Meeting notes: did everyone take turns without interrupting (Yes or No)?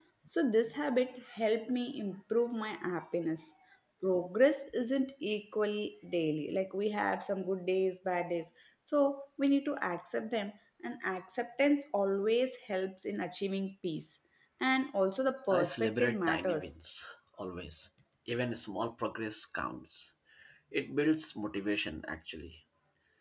No